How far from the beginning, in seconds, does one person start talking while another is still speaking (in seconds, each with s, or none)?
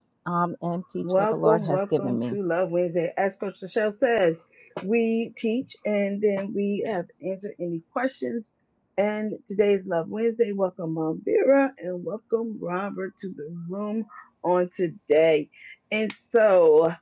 1.0 s